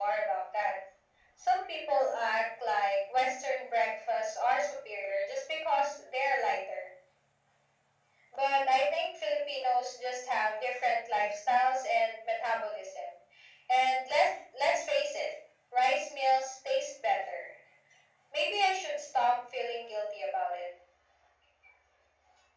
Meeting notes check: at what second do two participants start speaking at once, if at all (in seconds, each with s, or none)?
none